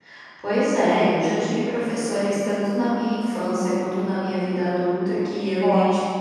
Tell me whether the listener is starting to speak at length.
No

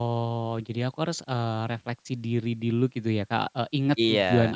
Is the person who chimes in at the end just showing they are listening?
Yes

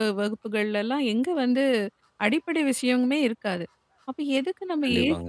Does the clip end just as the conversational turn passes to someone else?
No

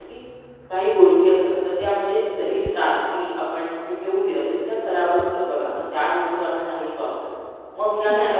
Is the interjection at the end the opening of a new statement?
No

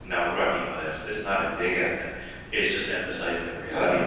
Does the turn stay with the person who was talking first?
Yes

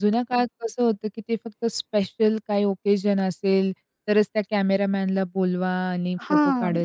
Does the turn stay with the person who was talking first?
Yes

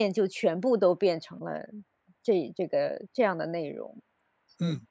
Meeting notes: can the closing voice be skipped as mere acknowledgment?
No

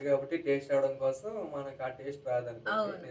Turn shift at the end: Yes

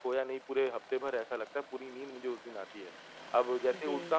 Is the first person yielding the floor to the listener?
No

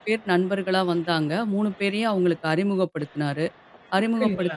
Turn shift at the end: No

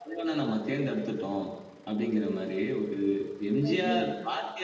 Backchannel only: Yes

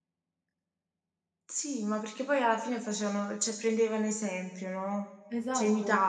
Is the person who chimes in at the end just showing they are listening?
No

